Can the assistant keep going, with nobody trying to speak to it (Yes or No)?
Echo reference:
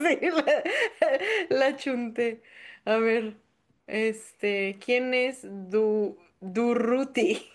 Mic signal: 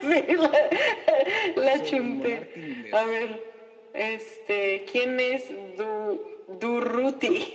No